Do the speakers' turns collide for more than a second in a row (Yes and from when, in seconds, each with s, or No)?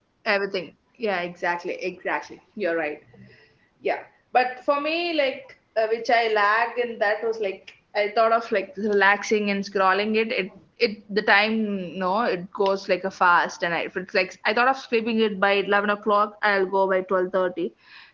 No